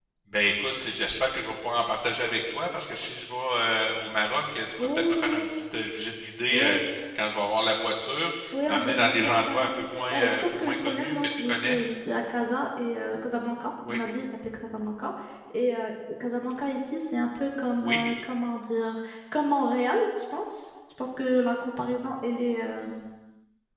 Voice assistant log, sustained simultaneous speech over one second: present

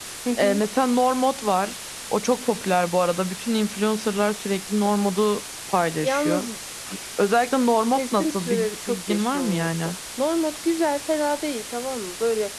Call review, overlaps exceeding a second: present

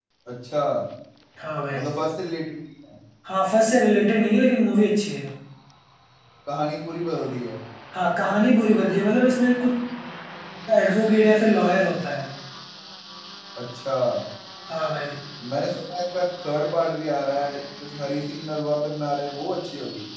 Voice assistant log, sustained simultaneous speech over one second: none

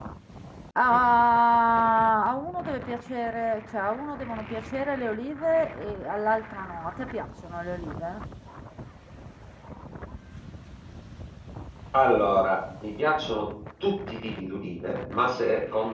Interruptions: none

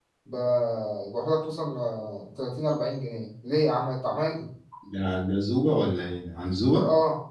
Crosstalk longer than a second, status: none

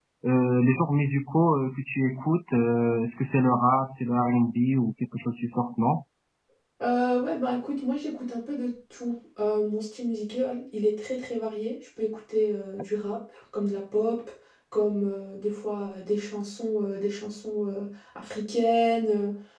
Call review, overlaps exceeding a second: none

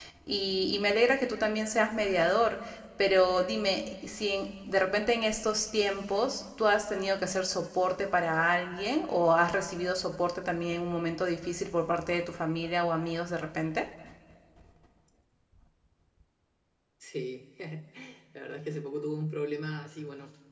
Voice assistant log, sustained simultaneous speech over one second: none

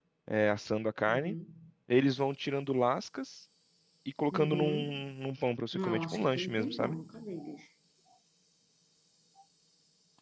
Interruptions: present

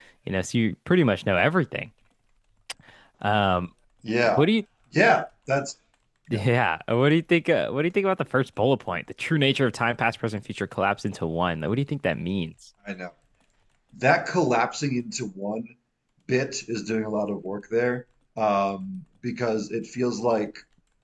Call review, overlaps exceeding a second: none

